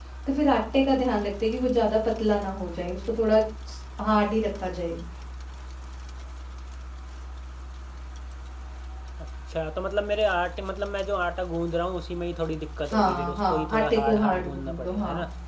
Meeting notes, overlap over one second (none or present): present